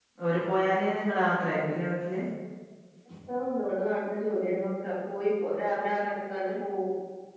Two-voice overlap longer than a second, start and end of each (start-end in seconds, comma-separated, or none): none